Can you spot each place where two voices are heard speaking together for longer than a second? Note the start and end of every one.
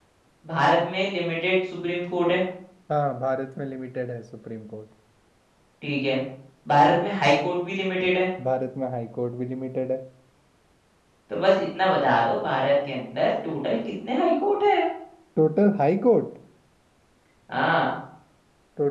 none

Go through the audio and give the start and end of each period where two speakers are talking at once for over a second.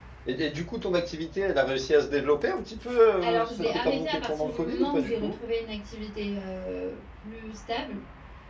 3.2-5.4

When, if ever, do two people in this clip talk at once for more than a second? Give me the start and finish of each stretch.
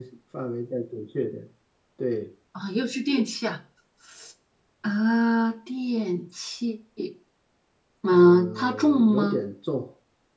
8.1-9.4

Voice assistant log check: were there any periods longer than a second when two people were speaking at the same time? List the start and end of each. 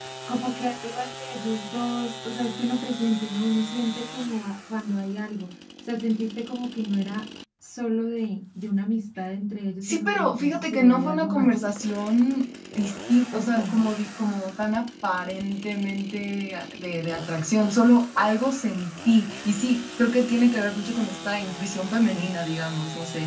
9.8-11.6

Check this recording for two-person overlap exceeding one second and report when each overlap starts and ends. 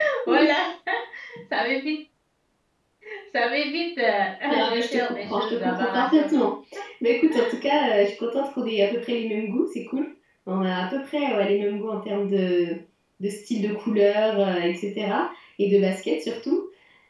4.5-6.3

